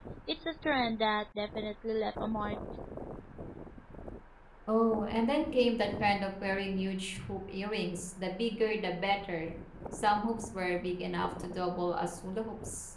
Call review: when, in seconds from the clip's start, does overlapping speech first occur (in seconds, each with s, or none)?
none